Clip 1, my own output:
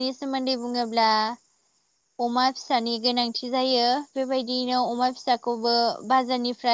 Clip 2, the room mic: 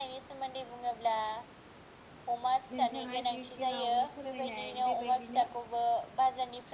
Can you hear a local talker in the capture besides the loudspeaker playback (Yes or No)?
Yes